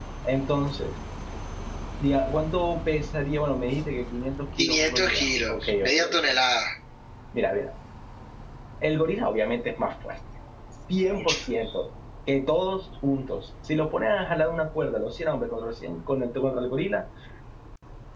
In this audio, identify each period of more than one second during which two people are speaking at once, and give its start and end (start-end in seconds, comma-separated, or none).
4.6-6.2